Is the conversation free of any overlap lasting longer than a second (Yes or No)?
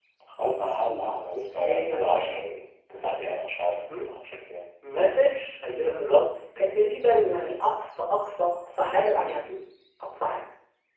Yes